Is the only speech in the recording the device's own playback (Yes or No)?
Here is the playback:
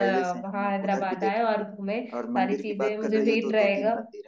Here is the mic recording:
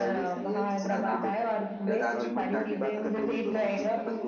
No